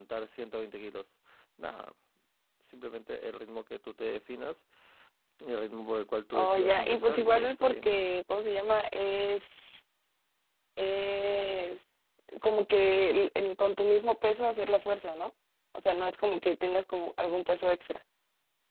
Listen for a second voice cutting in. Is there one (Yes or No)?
Yes